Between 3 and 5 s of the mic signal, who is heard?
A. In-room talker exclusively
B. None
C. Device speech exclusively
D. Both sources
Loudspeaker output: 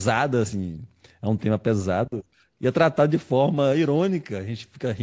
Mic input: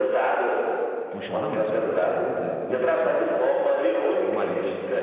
D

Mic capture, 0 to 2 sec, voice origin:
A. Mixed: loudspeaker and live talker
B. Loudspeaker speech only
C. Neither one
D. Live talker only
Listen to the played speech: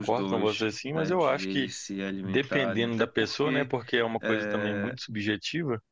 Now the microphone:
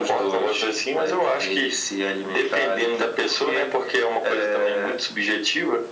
B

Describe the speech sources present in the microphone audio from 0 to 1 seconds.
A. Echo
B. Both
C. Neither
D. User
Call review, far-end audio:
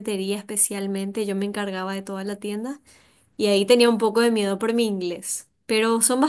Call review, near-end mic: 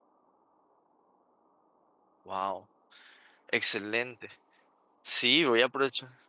C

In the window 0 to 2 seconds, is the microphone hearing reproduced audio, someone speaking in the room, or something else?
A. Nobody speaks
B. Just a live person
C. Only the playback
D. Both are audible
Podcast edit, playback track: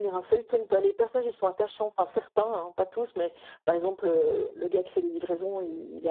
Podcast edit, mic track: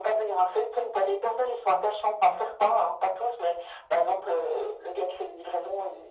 C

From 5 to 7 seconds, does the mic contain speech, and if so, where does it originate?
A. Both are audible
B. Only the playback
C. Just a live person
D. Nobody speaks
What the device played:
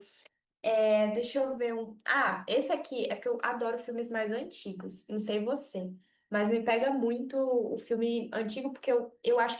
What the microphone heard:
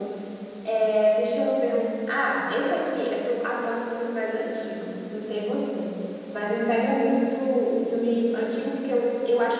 B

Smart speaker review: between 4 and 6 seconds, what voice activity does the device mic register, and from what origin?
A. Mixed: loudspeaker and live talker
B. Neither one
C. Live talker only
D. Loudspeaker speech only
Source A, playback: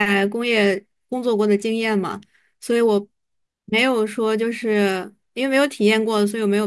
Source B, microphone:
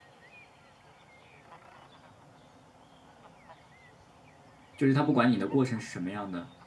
C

